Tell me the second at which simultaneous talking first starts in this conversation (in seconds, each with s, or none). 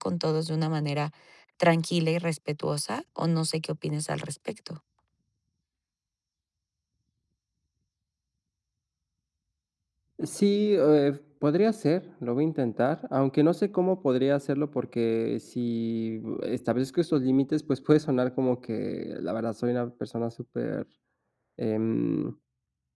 none